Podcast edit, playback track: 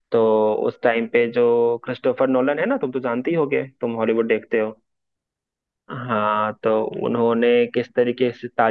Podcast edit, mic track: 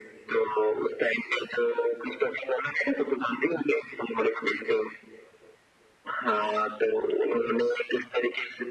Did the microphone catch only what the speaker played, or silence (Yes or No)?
Yes